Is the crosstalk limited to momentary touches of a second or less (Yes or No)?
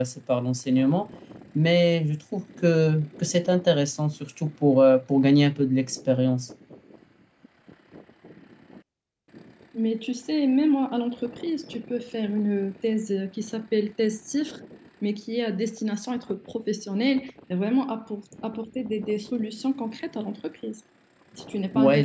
Yes